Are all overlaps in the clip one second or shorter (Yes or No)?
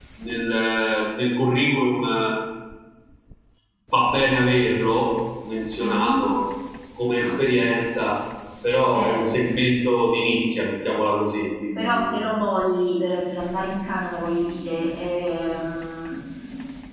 Yes